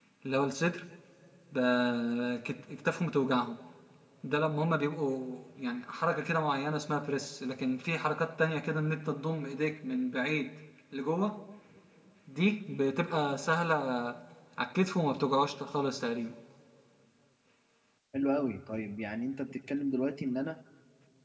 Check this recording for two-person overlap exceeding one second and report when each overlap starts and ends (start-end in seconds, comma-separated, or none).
none